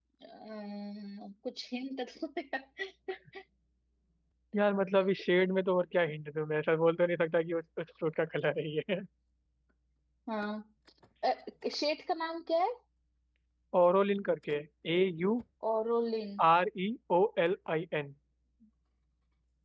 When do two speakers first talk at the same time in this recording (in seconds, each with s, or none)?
none